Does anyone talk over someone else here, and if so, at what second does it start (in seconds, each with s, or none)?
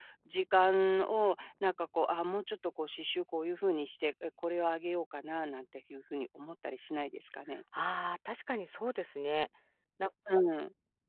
none